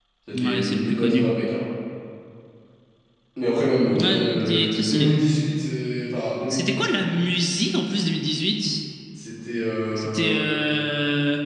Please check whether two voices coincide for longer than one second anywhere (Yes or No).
Yes